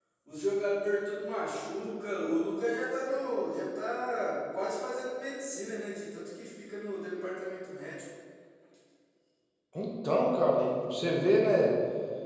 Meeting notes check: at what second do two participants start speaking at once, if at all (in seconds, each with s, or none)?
none